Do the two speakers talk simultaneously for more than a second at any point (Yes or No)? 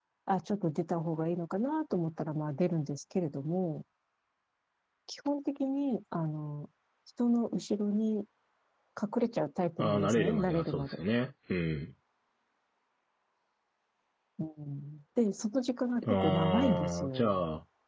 Yes